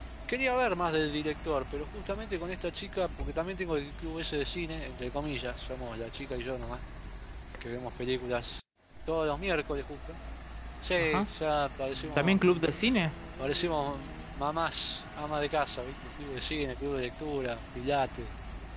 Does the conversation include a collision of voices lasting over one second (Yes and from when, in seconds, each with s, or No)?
No